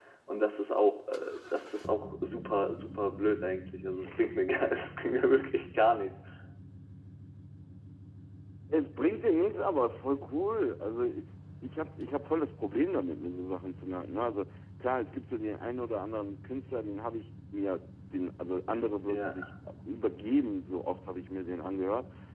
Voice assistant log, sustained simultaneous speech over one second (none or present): none